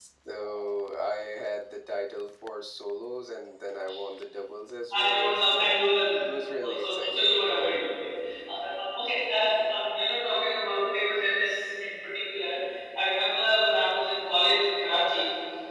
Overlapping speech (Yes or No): Yes